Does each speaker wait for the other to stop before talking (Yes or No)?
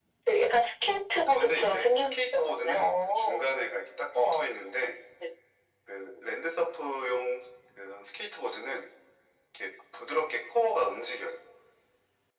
No